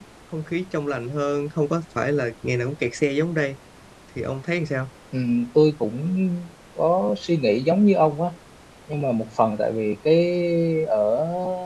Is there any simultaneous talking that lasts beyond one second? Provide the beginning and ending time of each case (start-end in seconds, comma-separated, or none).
none